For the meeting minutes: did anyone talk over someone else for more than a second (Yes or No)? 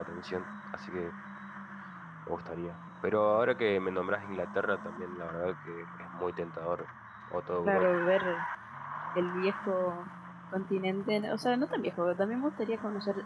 No